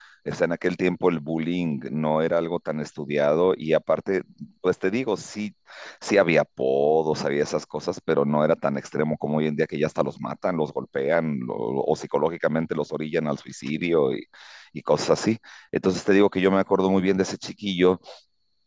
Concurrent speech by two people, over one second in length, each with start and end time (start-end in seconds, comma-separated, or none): none